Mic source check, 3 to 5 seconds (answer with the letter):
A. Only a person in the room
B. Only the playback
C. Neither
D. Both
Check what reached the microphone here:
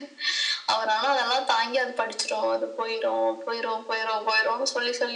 B